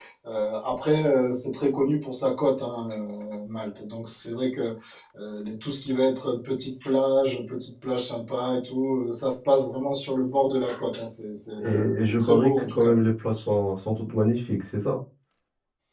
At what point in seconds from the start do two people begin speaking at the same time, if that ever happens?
11.6 s

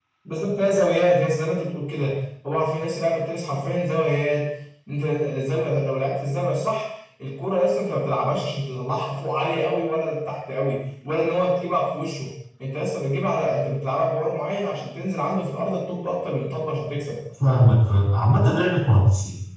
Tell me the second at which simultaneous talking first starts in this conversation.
none

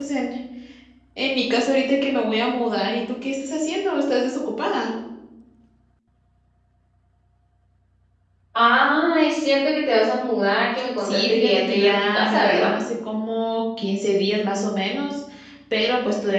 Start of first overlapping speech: 11.0 s

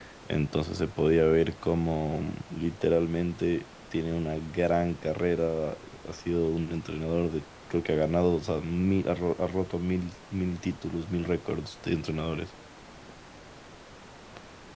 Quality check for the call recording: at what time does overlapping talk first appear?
none

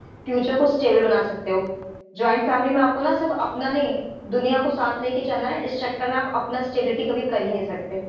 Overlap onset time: none

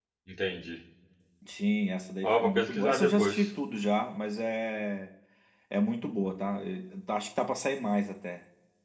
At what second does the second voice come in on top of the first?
2.2 s

